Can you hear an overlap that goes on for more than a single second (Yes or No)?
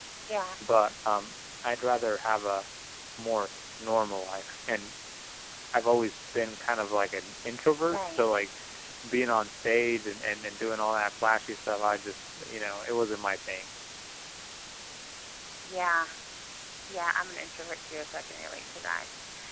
No